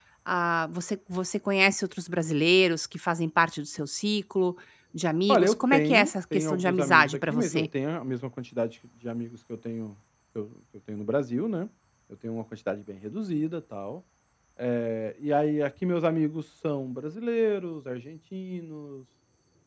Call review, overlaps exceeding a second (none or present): present